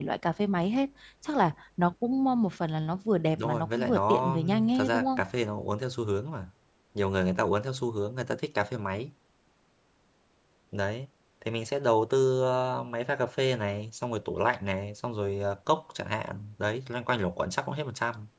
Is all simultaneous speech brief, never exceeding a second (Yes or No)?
No